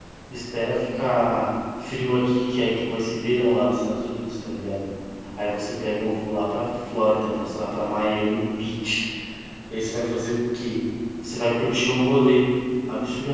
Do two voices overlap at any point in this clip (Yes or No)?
No